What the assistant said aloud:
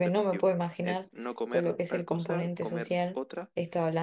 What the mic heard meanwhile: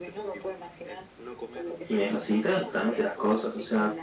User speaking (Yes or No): Yes